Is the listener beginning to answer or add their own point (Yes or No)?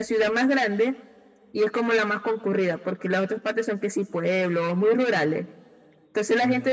No